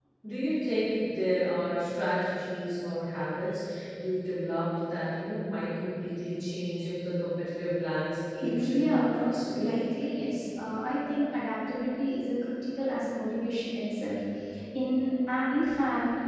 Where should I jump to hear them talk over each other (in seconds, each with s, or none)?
8.4 s